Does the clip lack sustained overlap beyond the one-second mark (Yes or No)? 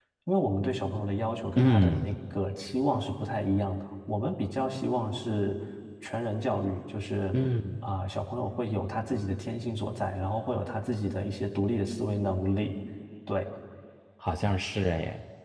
Yes